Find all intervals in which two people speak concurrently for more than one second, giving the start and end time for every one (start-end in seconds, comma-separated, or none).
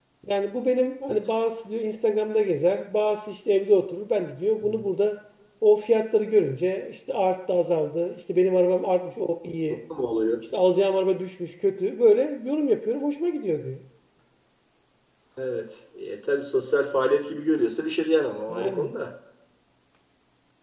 none